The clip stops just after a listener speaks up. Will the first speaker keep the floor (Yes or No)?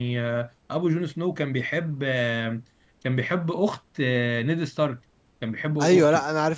No